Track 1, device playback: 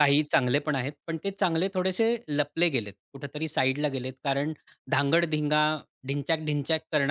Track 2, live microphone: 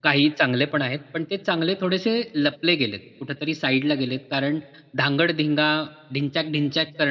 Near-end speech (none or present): none